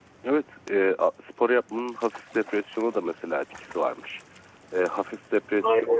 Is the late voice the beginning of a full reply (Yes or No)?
No